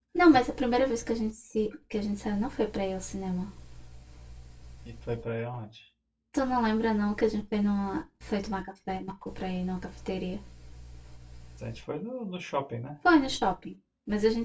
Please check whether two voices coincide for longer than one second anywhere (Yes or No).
No